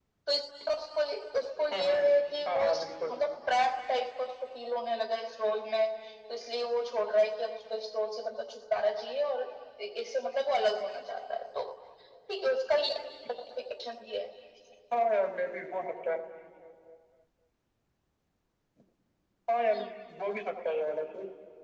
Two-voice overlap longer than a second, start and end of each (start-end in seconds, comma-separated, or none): 1.7-3.1